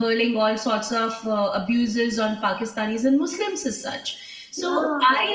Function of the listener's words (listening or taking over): listening